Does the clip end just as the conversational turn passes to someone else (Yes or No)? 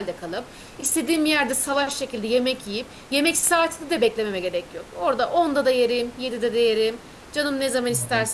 No